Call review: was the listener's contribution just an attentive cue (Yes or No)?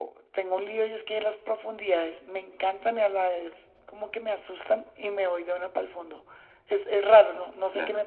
Yes